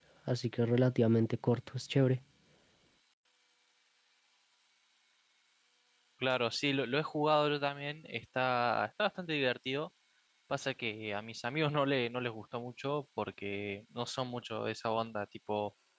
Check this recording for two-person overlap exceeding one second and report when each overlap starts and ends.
none

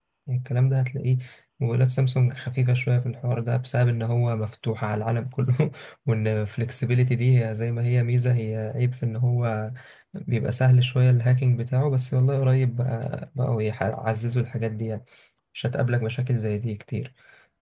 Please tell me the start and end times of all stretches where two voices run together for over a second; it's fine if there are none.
none

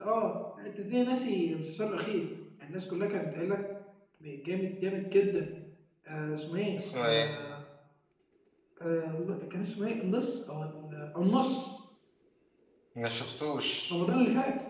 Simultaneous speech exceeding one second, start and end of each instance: none

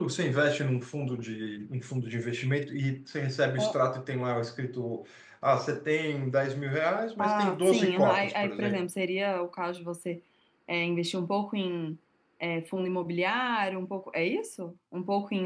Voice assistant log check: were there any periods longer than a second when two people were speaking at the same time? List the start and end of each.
7.2-8.8

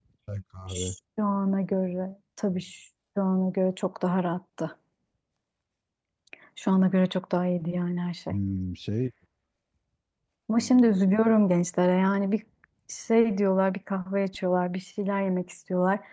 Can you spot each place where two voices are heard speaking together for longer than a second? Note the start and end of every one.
none

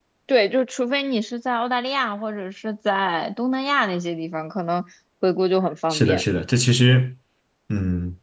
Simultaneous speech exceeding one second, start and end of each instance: none

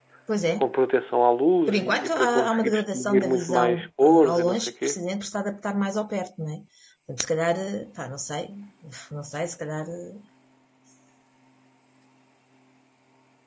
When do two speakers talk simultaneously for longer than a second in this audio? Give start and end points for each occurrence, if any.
1.7-5.0

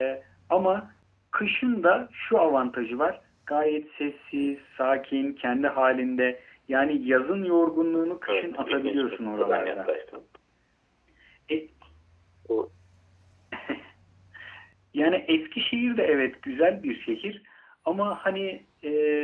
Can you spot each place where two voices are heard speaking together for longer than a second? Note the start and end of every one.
8.3-9.9

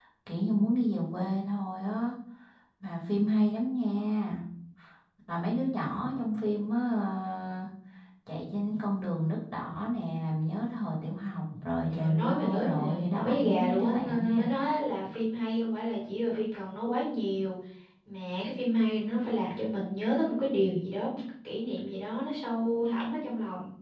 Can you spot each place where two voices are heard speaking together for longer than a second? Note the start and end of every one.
11.9-14.5

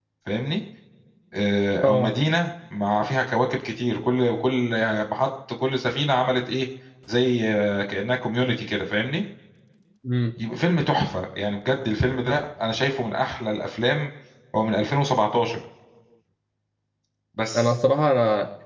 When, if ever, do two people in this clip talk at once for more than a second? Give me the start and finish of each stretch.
none

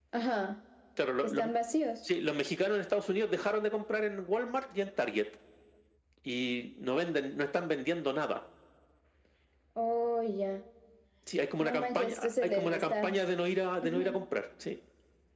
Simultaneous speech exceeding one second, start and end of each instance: 11.6-13.2

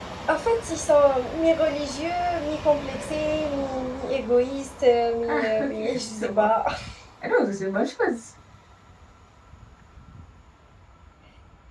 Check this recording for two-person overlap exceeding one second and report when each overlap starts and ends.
5.3-6.5

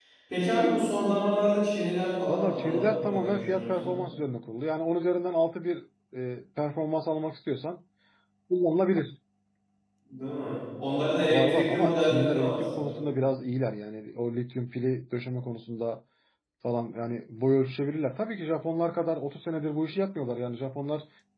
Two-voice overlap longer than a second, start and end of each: 2.3-4.0, 11.3-13.1

